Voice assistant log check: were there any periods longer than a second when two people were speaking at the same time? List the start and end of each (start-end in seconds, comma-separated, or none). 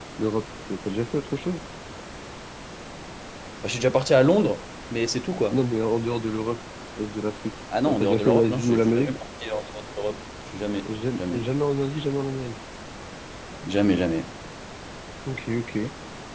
7.9-9.1